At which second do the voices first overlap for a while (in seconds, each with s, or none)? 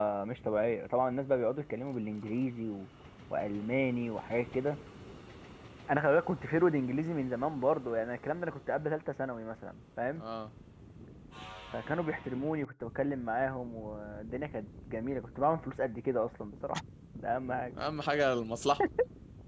none